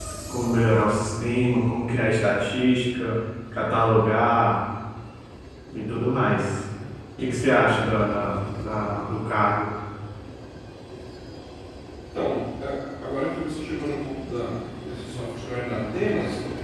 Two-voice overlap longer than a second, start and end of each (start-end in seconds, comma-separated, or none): none